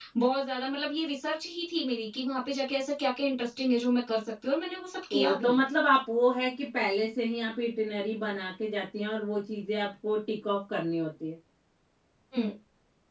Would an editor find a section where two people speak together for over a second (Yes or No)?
No